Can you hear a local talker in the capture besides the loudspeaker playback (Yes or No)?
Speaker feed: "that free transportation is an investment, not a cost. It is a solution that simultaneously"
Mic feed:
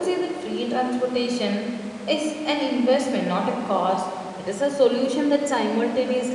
No